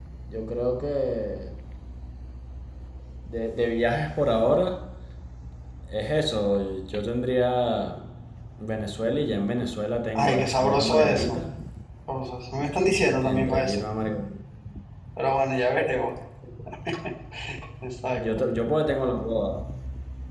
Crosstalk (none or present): present